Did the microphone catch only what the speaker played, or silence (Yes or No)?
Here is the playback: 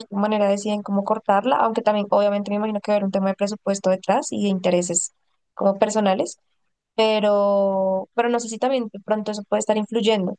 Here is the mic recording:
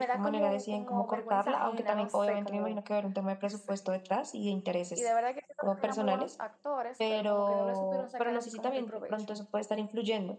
No